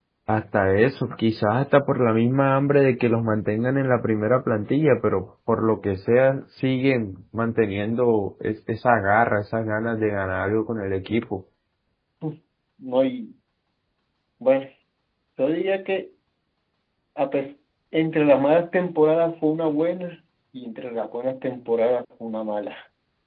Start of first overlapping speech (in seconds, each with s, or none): none